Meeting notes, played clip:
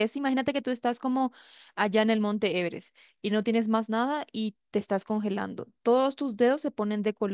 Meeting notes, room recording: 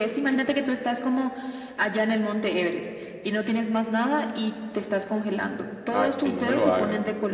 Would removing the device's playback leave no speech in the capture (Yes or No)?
No